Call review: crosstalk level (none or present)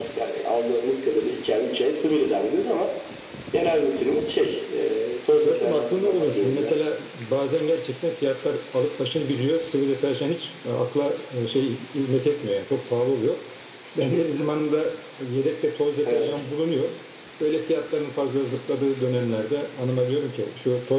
present